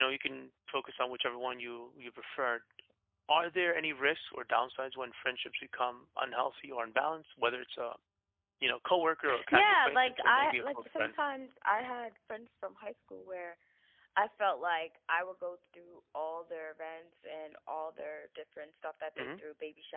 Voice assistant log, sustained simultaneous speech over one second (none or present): present